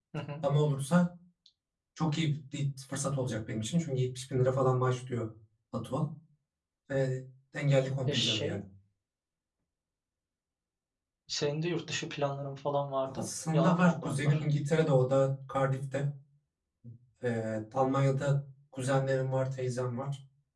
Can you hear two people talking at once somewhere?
Yes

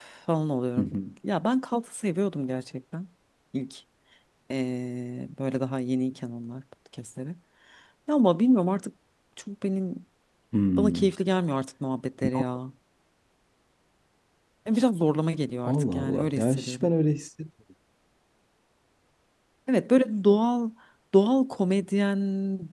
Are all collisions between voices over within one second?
No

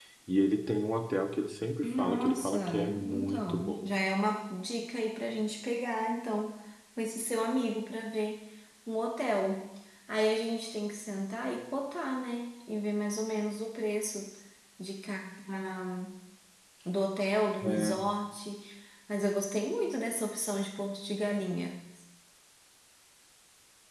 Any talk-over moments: Yes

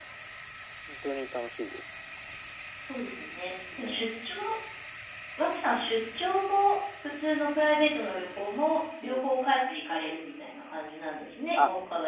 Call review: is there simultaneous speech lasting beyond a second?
No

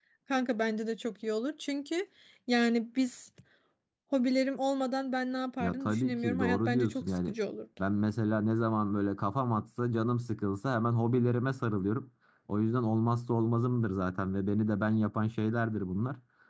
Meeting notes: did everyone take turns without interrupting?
No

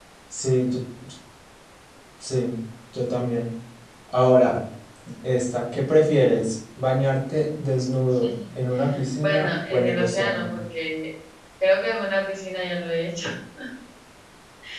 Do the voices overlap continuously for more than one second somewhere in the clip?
Yes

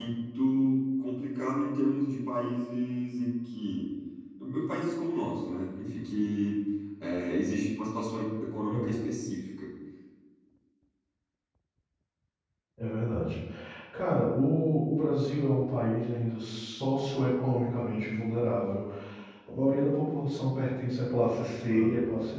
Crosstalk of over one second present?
No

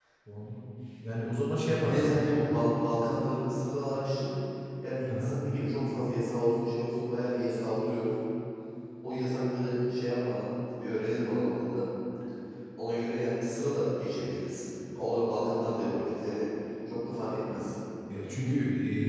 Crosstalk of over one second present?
No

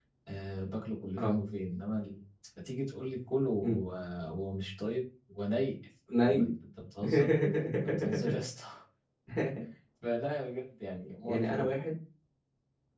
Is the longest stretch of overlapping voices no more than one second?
Yes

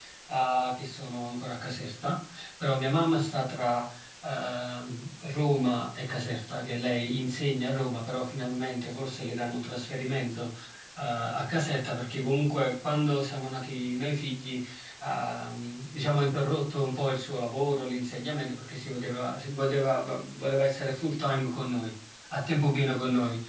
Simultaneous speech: No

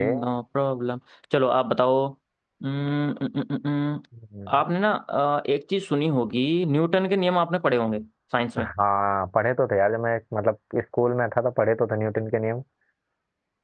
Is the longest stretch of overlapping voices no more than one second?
Yes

